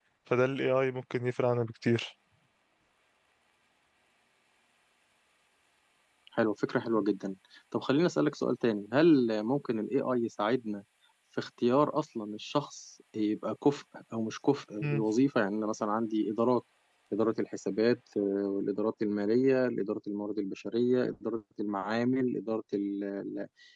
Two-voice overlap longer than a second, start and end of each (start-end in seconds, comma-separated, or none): none